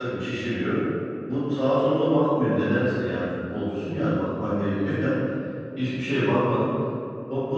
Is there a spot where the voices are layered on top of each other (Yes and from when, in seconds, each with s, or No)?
No